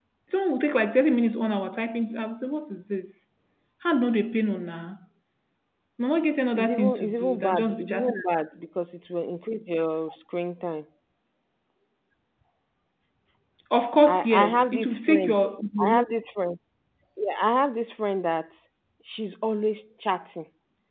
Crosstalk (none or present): present